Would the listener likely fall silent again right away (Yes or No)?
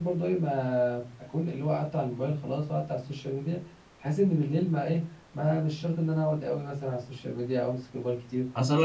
No